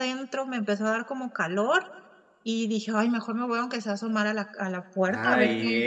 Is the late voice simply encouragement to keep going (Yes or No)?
No